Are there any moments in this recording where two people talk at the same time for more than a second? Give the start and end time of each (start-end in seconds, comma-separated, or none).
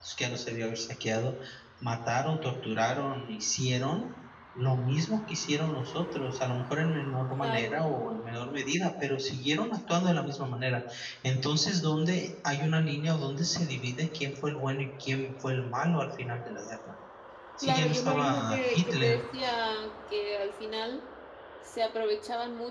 17.6-19.2